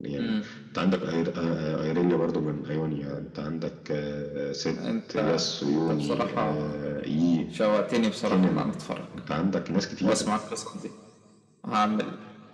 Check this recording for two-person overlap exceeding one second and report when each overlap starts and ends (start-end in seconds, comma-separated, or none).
5.2-6.7